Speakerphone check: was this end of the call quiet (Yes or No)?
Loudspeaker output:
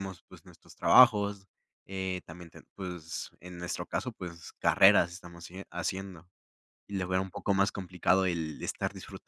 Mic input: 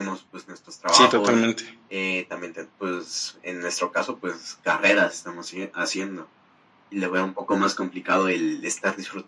No